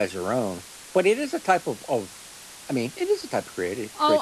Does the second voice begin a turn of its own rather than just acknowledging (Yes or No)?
Yes